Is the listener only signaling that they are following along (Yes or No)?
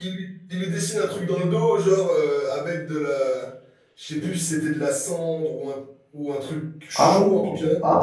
No